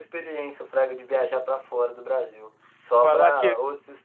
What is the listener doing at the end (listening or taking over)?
listening